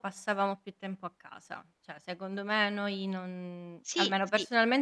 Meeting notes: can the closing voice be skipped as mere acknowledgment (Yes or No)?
Yes